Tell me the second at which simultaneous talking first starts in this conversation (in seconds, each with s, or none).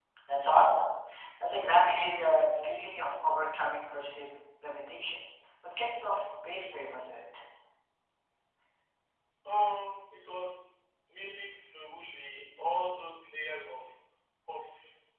none